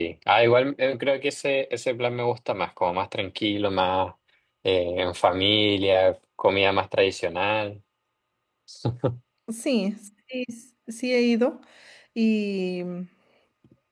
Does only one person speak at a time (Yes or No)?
Yes